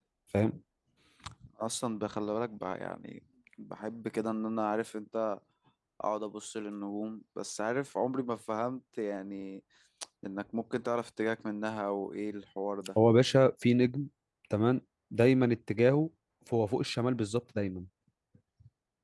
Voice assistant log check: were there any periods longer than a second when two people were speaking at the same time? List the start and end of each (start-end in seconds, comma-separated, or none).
none